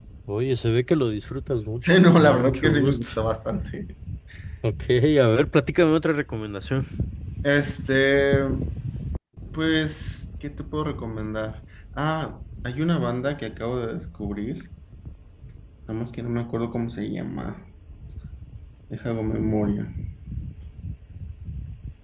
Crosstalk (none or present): present